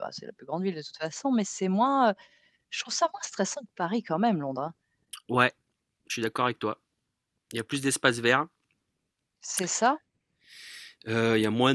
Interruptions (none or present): none